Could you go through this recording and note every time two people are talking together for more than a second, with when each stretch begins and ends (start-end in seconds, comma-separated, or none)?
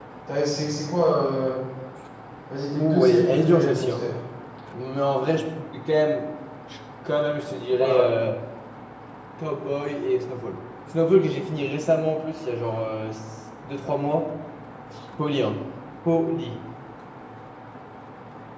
2.7-4.0